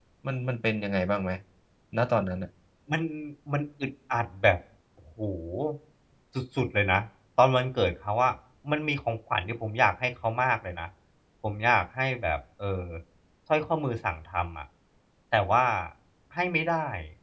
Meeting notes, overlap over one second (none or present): none